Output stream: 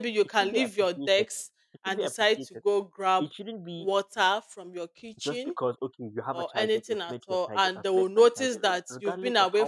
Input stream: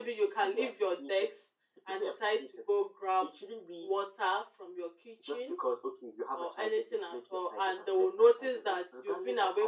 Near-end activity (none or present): none